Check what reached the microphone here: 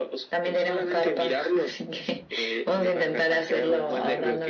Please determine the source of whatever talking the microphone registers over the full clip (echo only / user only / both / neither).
echo only